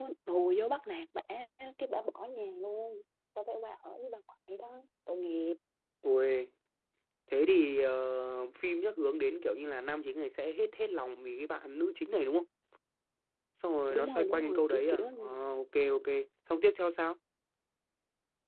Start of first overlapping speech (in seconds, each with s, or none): 13.9 s